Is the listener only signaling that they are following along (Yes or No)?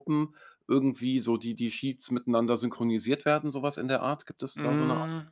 No